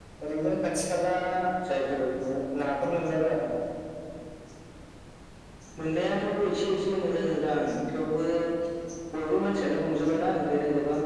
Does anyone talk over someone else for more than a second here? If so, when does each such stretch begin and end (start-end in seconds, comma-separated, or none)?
none